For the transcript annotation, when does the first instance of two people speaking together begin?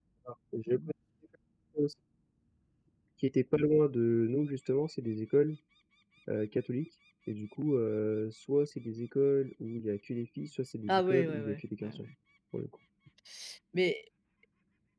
10.9 s

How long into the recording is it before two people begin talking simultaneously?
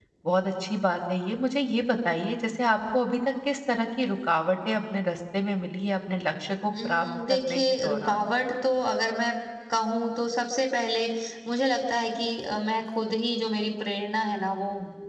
6.8 s

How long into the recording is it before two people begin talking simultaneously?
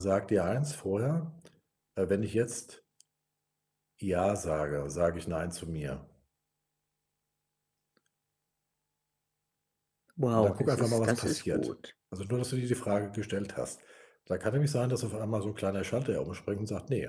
10.3 s

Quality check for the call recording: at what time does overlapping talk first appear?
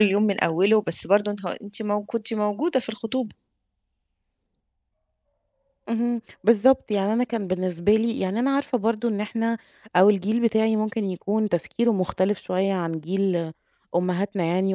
none

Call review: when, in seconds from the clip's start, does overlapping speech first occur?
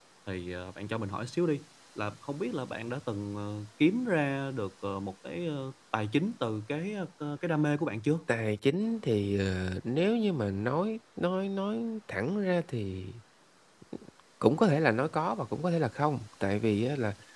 none

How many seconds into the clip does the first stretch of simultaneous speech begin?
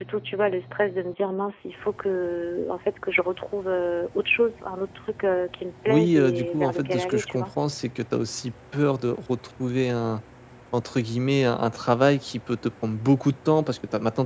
5.9 s

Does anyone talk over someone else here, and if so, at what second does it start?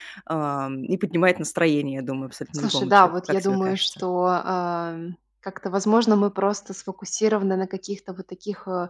2.5 s

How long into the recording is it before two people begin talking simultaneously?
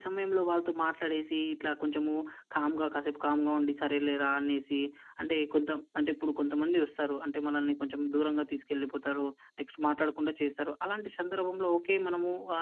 none

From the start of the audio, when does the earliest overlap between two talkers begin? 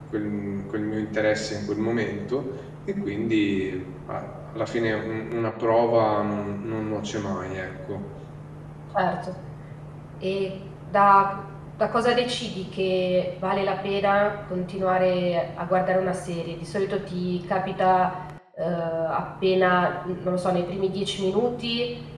none

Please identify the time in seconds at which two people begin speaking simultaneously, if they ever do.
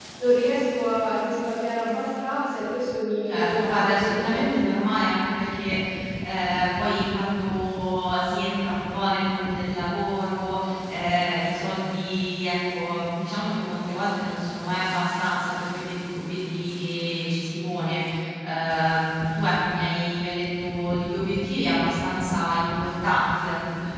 3.2 s

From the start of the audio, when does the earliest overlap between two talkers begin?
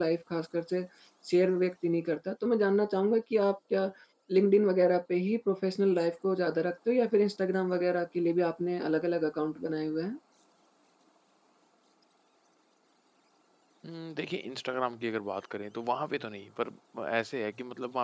none

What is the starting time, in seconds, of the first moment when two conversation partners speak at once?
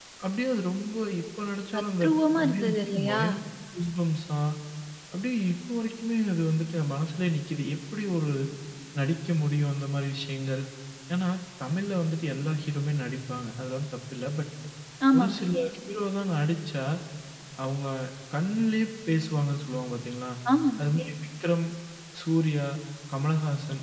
1.7 s

